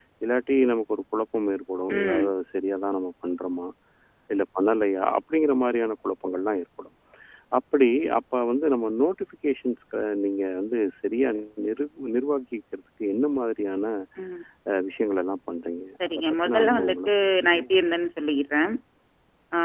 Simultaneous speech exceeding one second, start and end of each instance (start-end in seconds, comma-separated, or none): 16.0-17.6